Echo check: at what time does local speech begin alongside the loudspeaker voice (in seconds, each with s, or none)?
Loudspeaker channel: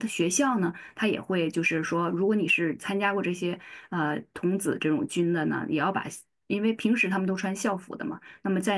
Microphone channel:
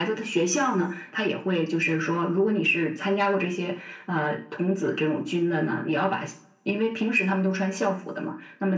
none